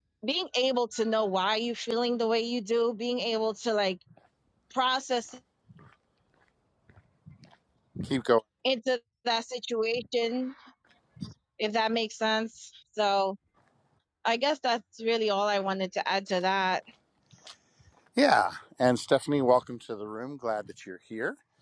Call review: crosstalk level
none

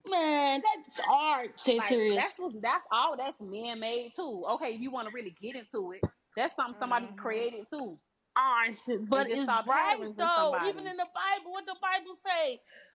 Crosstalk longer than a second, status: present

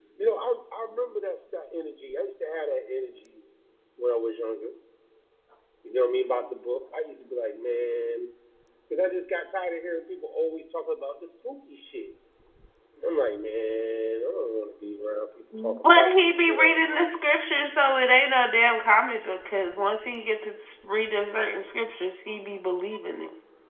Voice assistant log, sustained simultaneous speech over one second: present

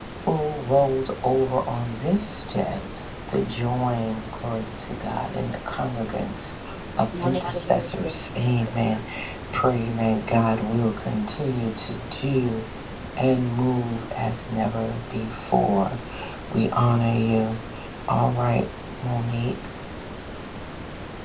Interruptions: present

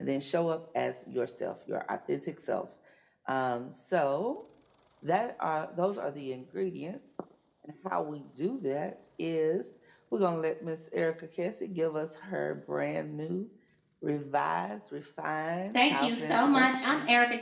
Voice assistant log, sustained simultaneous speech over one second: present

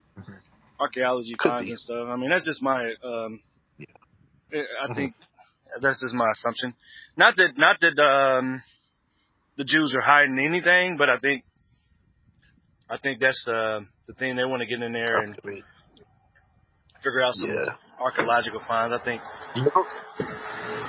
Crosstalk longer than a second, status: none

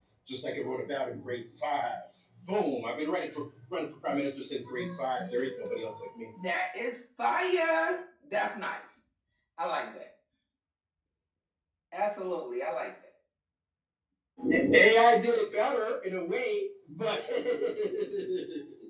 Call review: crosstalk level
none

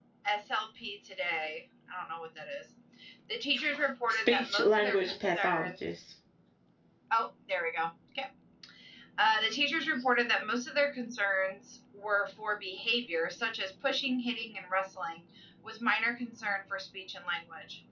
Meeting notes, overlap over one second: present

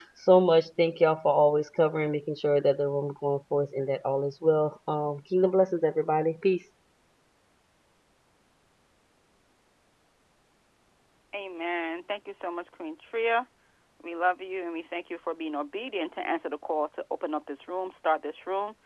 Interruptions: none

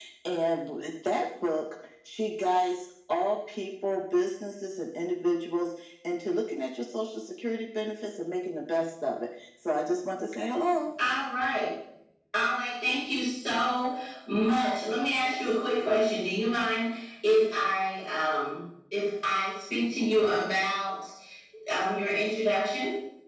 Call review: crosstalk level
none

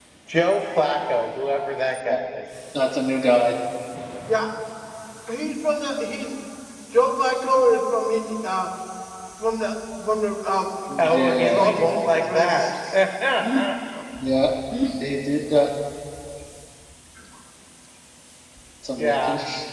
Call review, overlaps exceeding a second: present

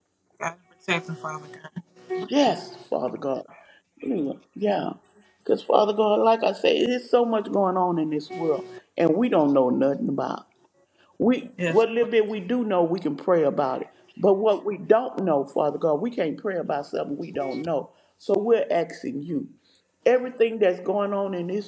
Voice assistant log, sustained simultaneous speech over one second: none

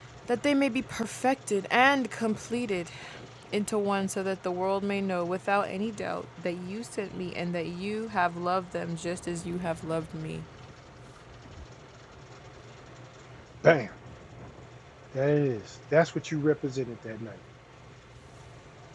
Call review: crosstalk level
none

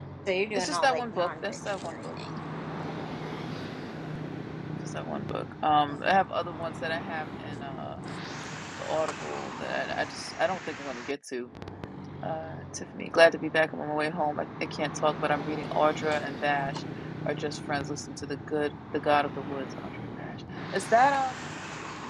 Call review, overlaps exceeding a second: present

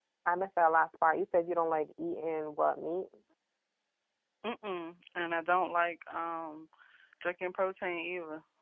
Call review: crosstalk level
none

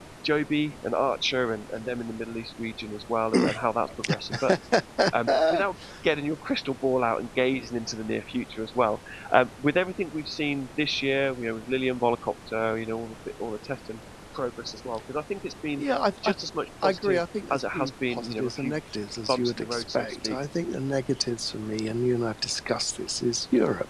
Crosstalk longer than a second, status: present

